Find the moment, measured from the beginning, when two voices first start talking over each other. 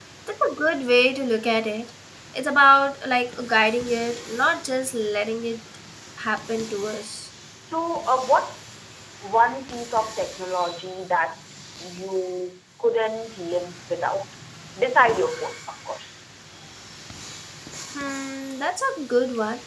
none

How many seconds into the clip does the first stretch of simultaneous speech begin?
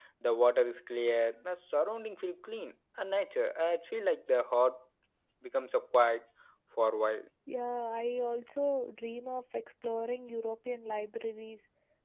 none

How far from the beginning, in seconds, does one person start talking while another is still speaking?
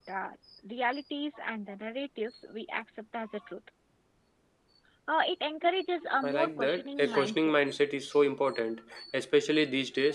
6 s

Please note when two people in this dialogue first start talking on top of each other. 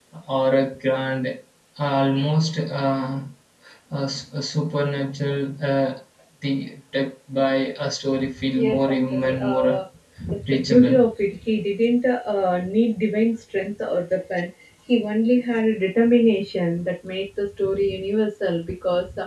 9 s

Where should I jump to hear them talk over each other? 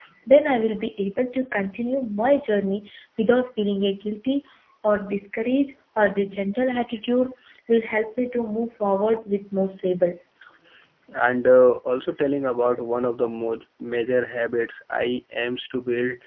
none

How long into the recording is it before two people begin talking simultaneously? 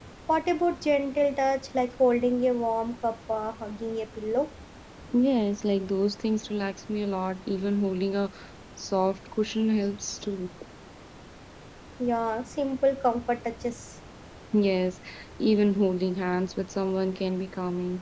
none

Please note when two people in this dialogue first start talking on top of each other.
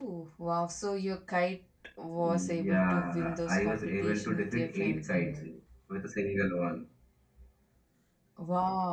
2 s

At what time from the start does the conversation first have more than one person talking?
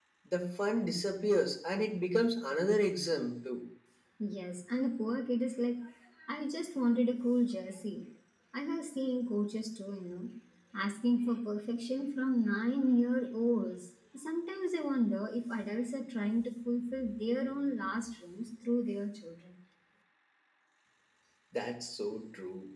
none

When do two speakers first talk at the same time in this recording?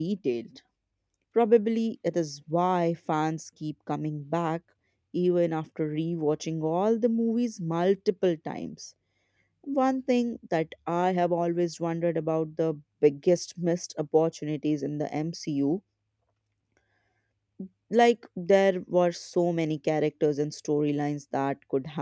none

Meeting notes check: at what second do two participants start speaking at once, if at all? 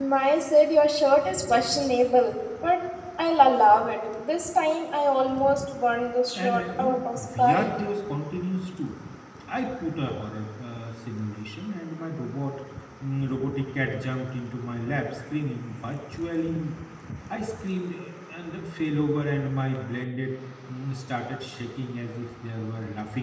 6 s

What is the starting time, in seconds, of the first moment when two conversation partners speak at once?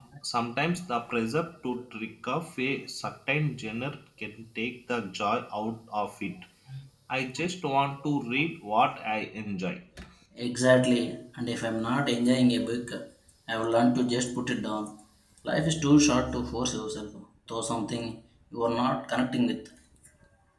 none

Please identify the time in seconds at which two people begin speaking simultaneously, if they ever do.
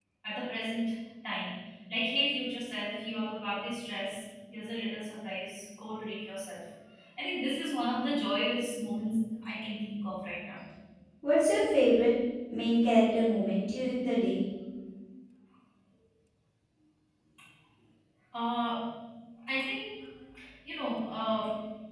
none

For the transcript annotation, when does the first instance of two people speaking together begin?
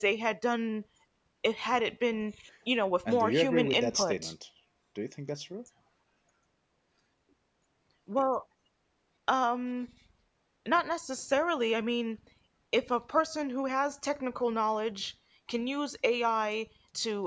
3 s

